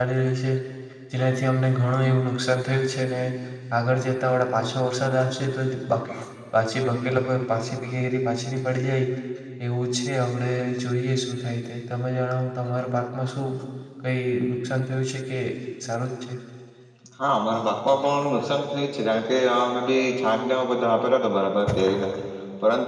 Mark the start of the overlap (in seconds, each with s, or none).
none